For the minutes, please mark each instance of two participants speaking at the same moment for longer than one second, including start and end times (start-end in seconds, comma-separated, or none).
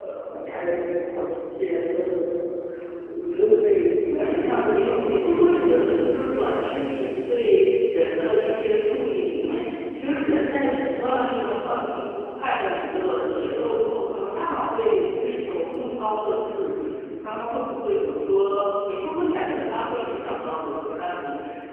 4.2-6.1